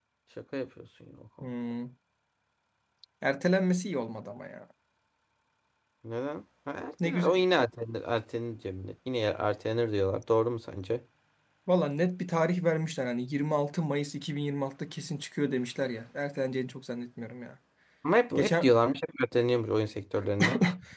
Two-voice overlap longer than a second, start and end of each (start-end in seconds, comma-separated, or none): none